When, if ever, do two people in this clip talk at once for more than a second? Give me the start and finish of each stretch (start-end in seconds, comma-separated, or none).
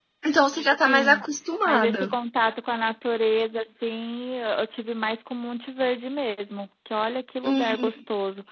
none